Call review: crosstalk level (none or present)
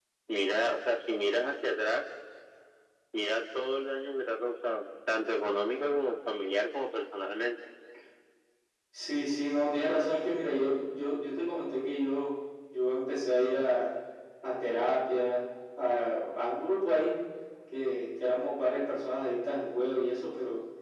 none